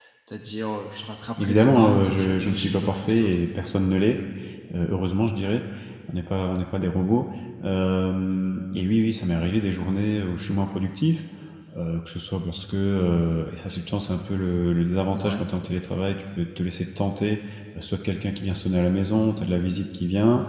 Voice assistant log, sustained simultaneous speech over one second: present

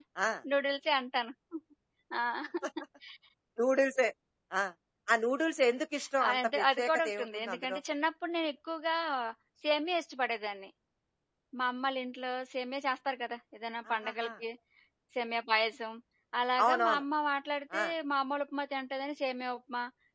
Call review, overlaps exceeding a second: present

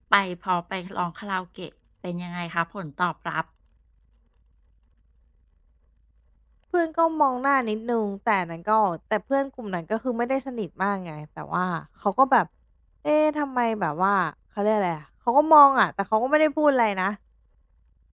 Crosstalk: none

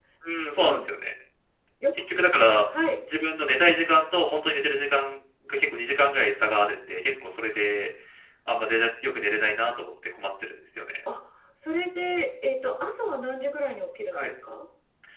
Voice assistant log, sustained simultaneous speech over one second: none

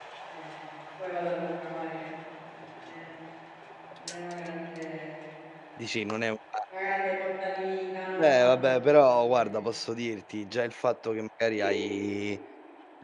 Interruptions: present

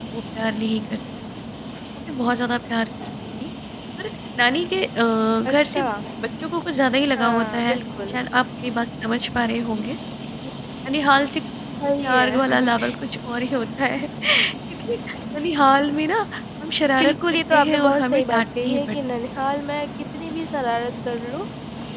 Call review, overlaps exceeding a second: present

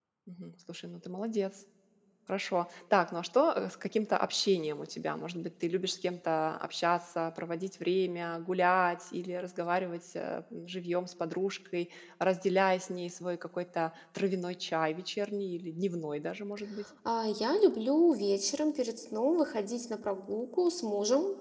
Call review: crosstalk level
none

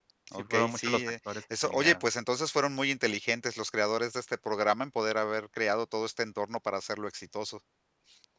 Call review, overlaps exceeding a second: present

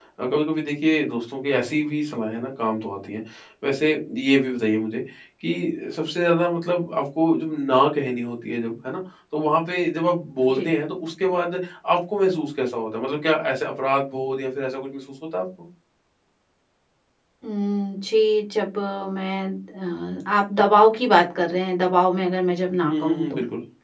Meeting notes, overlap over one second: none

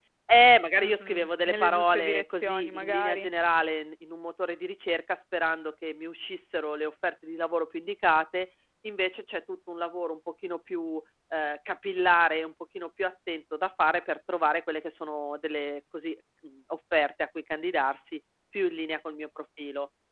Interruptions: present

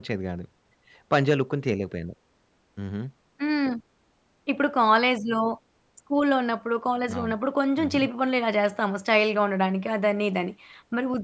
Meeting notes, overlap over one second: none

